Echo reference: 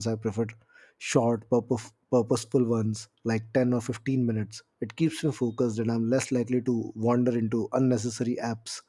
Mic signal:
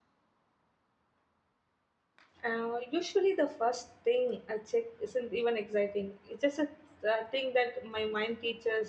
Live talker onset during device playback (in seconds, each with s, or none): 2.5 s